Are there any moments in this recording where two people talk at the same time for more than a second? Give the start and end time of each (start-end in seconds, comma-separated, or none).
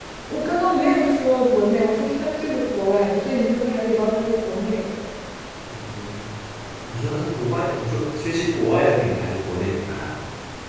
none